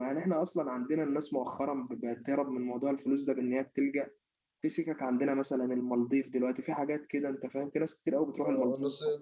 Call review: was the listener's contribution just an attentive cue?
No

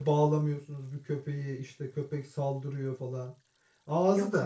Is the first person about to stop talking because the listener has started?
No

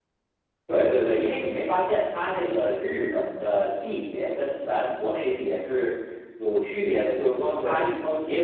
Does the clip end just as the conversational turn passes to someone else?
No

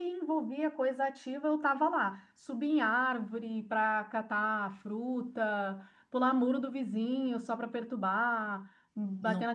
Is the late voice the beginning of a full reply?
No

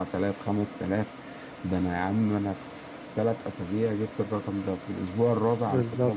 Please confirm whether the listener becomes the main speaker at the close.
No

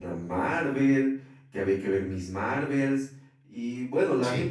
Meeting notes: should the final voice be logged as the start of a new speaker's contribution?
No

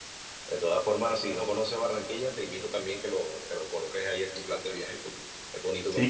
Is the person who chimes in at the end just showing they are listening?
No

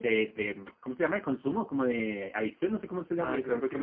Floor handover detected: Yes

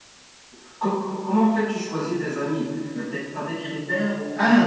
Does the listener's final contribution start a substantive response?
Yes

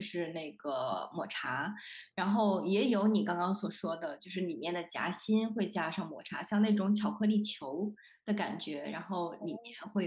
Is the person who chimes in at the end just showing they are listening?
Yes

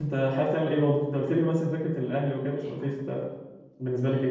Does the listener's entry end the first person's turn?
Yes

